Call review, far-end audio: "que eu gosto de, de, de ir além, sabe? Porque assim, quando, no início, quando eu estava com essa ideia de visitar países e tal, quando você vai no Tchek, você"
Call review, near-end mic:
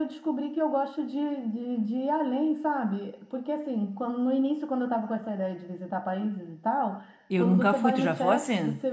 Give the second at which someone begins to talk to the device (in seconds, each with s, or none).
7.3 s